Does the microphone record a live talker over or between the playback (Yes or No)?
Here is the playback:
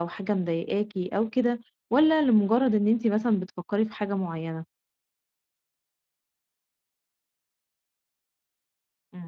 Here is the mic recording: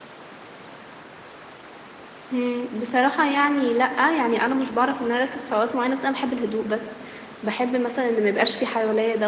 Yes